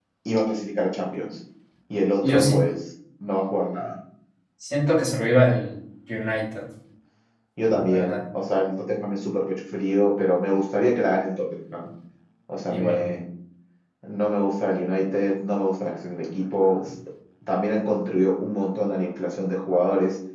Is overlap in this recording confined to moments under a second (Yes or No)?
Yes